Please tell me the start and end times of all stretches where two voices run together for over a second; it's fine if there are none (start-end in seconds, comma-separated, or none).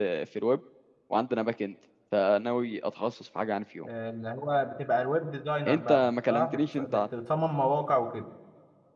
5.7-7.0